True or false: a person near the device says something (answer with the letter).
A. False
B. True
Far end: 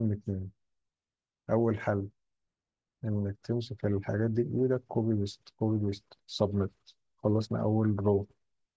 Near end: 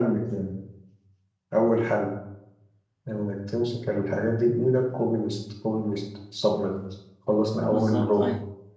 B